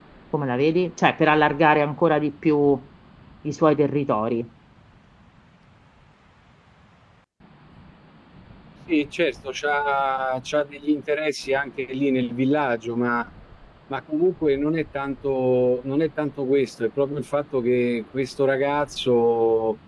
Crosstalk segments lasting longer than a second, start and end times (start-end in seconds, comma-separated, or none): none